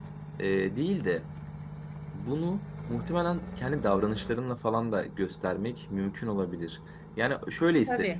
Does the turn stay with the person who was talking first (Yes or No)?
Yes